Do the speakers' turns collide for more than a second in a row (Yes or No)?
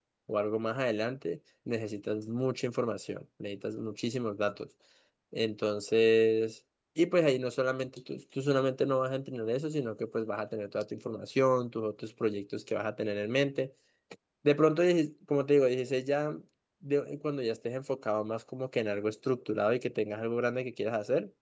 No